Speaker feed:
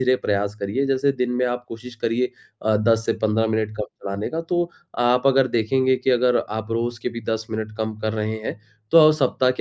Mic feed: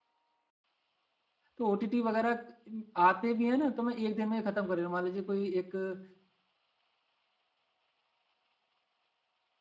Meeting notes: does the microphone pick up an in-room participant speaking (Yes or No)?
Yes